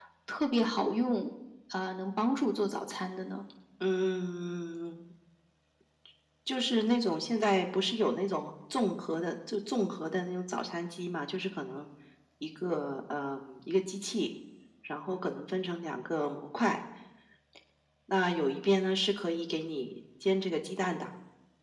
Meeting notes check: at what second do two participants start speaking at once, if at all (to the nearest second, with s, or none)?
none